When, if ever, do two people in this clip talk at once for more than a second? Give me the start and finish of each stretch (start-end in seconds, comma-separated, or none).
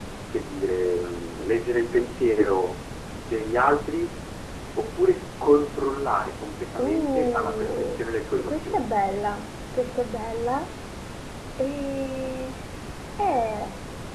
6.8-8.0